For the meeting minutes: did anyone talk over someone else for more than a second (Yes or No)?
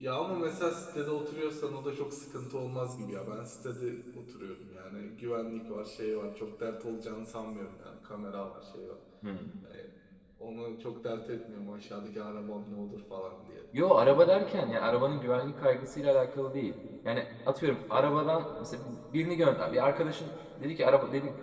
No